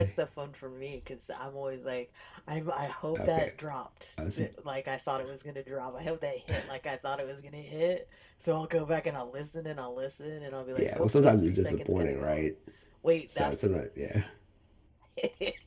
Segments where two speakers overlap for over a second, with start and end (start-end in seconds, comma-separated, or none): 10.8-12.4